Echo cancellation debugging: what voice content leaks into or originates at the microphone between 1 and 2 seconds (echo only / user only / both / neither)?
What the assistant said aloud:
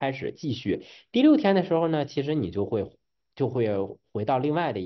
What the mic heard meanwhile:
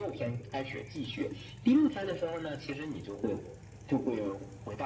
echo only